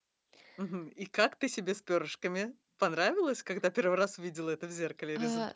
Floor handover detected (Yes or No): Yes